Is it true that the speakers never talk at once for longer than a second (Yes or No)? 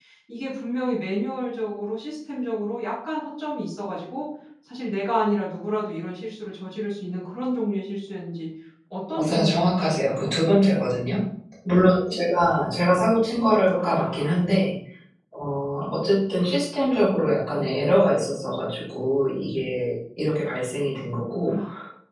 No